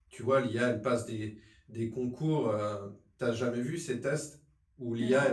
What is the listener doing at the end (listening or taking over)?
listening